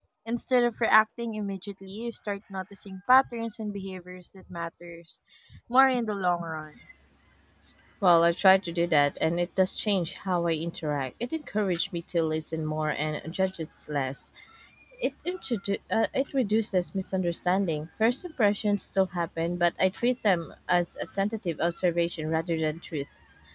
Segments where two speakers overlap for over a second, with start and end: none

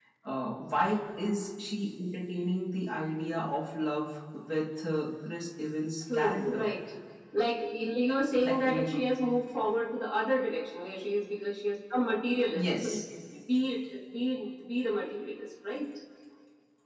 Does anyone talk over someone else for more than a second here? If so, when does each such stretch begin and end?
none

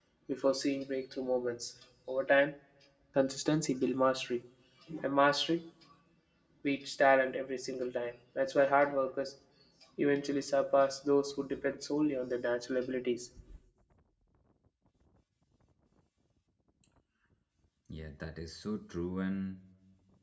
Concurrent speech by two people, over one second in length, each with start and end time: none

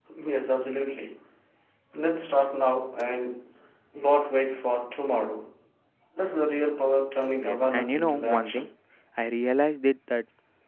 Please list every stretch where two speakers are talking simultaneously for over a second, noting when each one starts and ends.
7.4-8.7

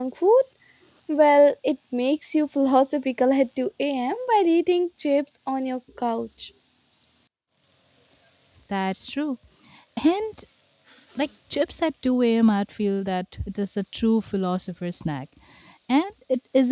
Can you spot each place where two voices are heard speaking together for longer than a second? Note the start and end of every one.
none

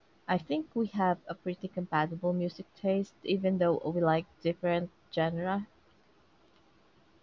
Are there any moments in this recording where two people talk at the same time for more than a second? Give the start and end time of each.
none

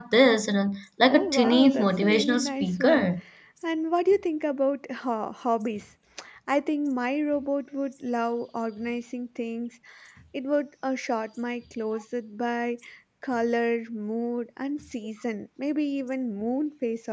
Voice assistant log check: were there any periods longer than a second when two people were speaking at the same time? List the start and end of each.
1.1-3.1

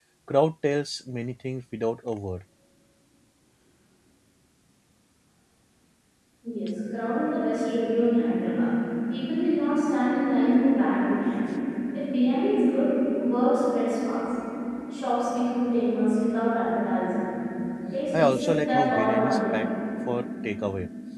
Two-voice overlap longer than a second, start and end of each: 18.2-19.7

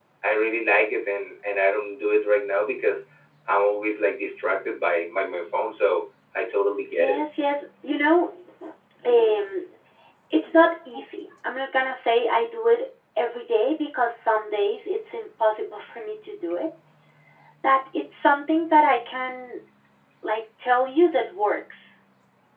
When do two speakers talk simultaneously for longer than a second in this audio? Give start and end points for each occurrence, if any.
none

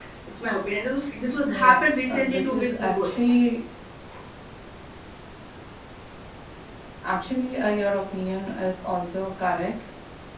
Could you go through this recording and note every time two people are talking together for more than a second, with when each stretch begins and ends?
1.5-3.1

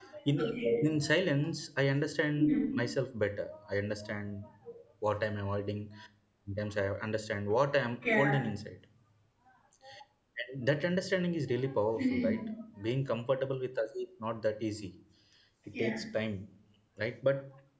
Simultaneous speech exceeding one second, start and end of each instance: none

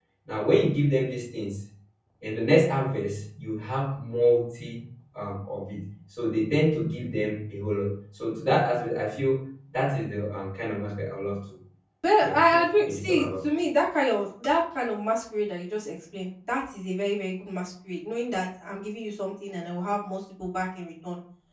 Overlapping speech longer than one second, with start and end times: 12.2-13.5

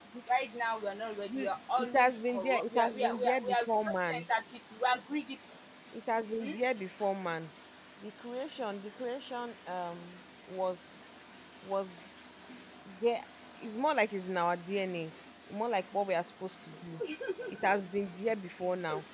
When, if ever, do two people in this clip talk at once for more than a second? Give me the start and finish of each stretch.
1.8-4.2

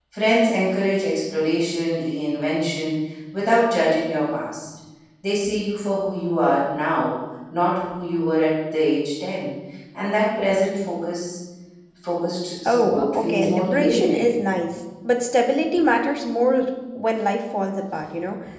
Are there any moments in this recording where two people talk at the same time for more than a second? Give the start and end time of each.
12.7-14.3

